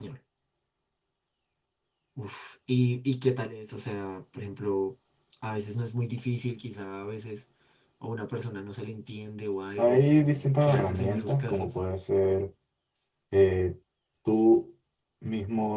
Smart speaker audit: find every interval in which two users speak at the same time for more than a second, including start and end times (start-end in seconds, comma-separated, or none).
9.8-11.8